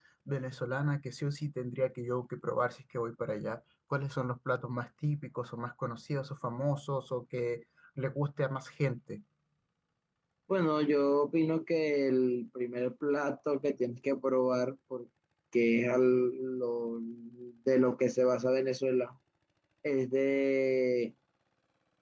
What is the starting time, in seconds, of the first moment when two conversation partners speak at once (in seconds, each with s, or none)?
none